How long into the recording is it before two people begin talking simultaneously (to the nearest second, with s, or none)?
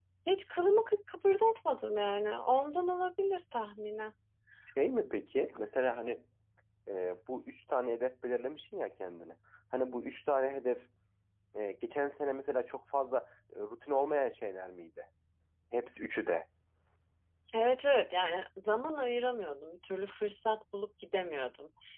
none